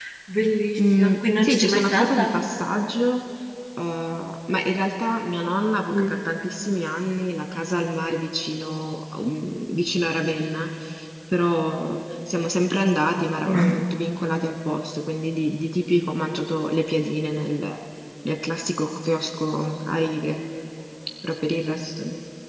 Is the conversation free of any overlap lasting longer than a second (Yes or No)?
No